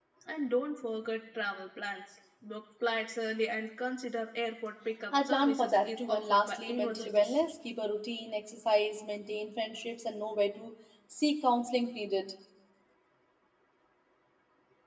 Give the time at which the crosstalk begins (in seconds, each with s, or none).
5.1 s